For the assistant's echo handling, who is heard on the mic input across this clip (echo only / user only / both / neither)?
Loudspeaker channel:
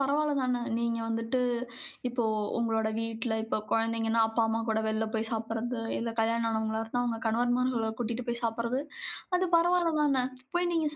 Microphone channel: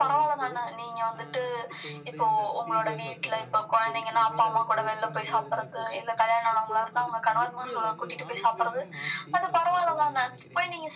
both